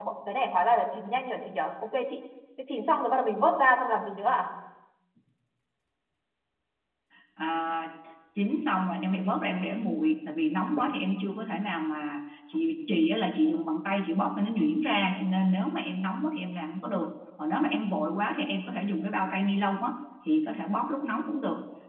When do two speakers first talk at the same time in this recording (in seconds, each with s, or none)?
none